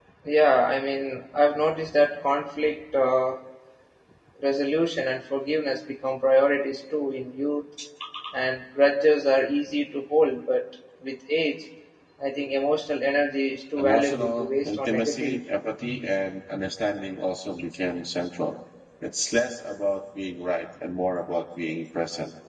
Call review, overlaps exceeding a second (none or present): present